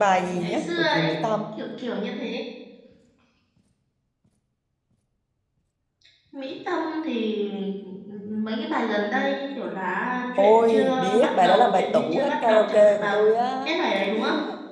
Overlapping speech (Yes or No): Yes